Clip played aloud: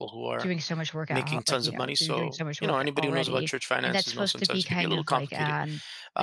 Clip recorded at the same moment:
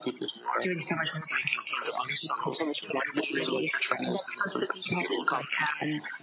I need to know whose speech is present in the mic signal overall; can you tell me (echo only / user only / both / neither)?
echo only